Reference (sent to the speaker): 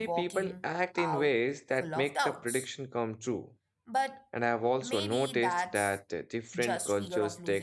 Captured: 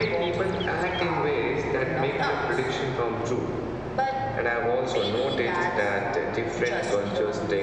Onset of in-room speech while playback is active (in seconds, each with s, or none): none